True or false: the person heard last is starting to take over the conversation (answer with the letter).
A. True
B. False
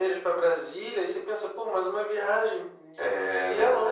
A